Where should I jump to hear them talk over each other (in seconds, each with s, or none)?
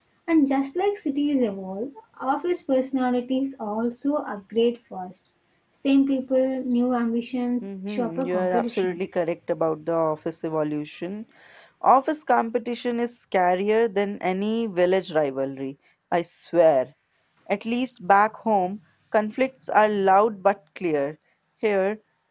7.6 s